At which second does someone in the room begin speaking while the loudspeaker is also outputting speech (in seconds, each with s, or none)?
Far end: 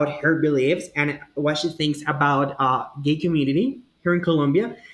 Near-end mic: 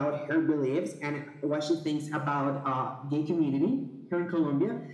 none